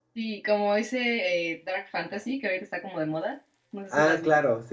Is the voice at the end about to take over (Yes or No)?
Yes